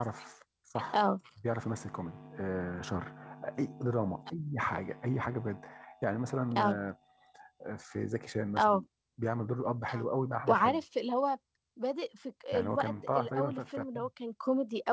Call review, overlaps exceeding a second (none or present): present